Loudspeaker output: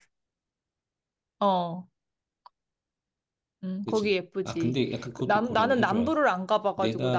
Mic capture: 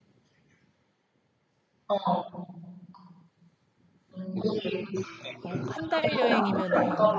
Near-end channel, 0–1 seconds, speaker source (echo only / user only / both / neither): neither